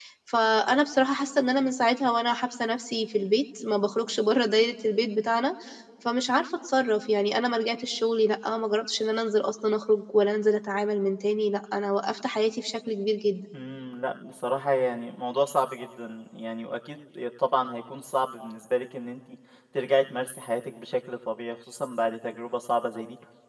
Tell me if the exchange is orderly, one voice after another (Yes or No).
Yes